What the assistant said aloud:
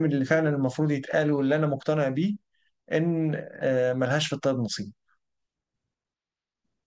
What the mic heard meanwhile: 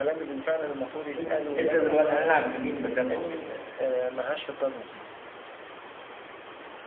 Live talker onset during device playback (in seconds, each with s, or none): 1.2 s